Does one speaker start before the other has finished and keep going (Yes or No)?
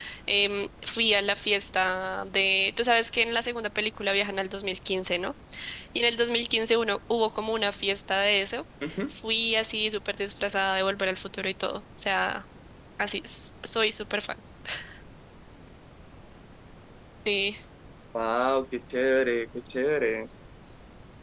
No